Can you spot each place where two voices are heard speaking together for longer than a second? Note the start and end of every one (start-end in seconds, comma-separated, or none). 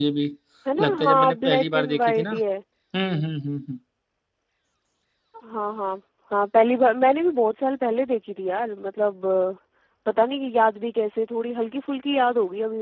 0.8-2.3